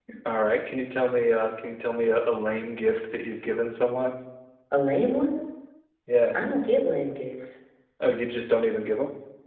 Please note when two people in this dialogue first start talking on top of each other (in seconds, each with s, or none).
none